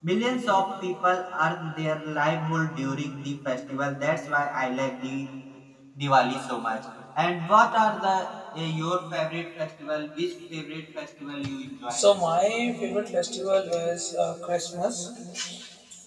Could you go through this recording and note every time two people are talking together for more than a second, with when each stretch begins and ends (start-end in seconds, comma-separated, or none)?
none